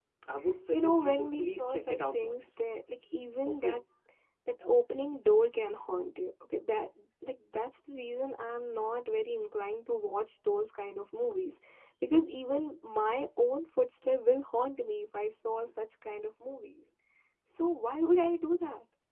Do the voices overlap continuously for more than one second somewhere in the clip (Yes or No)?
Yes